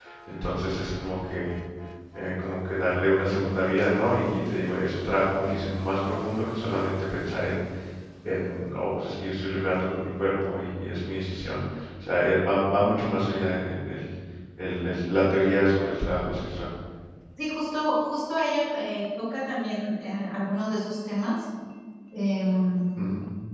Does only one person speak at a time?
Yes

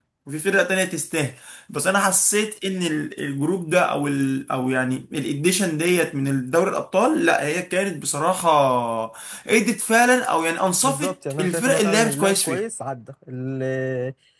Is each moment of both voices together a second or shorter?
No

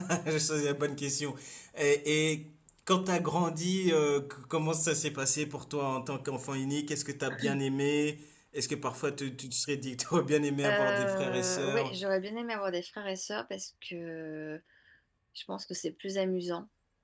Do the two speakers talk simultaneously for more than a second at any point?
Yes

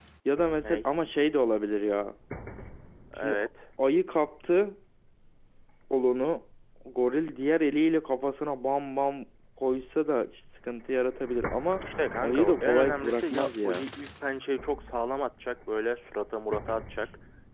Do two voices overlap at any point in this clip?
Yes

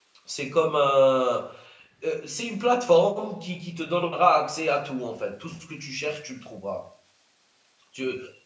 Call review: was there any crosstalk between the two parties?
No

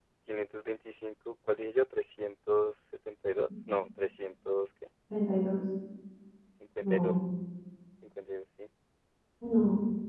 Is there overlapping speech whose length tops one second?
No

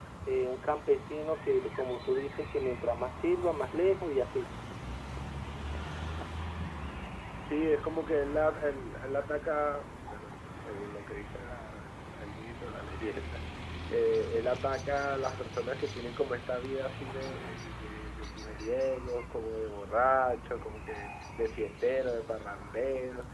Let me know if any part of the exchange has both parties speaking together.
No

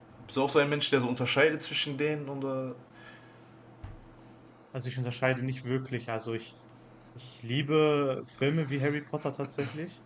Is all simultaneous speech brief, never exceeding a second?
Yes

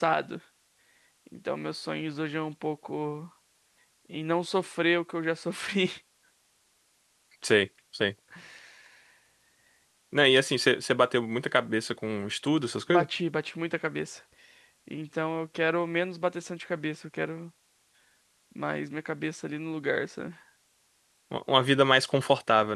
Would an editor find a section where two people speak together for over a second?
No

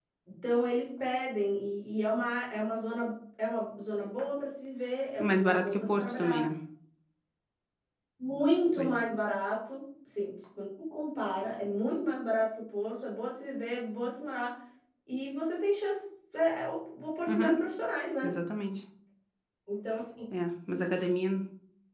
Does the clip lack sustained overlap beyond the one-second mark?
No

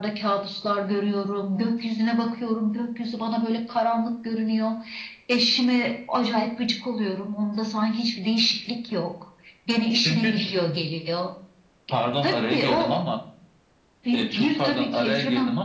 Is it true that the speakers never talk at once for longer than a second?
No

